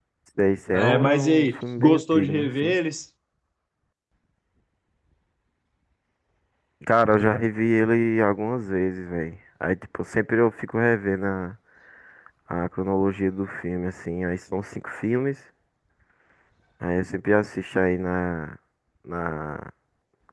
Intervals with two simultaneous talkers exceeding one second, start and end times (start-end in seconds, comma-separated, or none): 0.7-2.8